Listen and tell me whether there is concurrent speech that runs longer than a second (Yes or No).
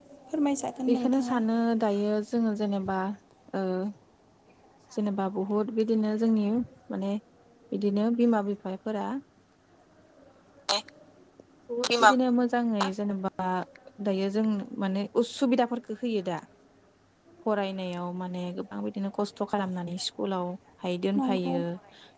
No